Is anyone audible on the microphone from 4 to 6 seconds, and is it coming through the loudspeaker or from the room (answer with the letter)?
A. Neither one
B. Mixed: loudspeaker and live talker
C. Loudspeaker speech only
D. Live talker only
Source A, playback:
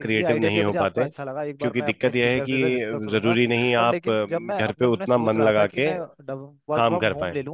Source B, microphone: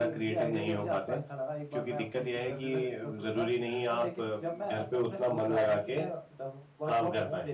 C